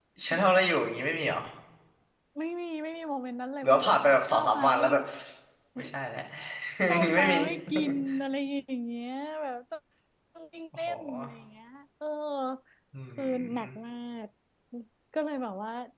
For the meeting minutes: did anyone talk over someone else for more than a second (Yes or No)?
Yes